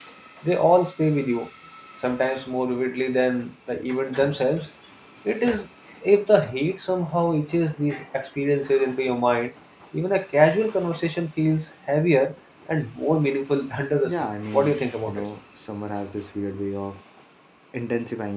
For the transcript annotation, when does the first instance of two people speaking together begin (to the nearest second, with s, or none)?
14 s